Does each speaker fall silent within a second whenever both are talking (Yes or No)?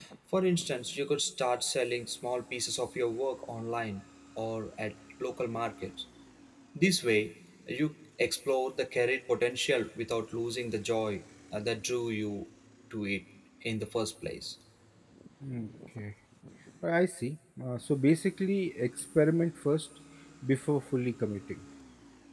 Yes